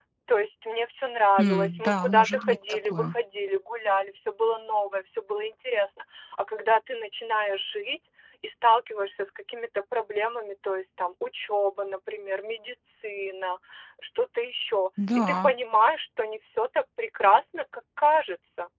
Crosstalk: present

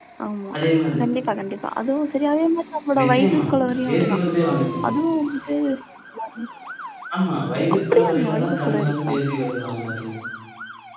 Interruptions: present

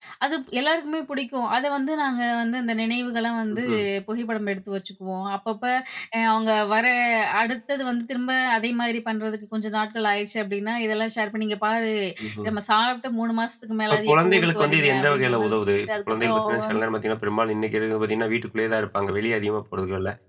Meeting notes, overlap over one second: present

